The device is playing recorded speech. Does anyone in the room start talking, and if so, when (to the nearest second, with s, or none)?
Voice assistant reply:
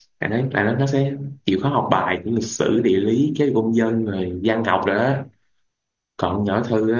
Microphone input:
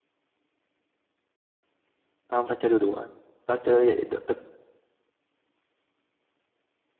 2 s